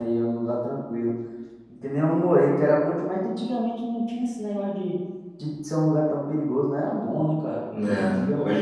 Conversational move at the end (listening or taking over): taking over